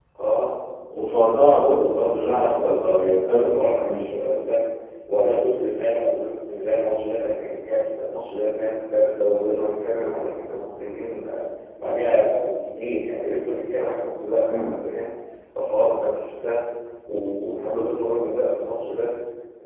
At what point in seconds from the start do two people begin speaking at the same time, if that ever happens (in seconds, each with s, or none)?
1.8 s